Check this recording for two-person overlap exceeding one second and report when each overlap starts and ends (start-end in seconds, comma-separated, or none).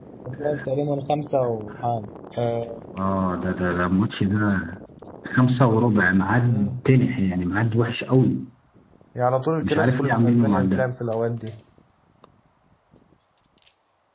9.6-10.9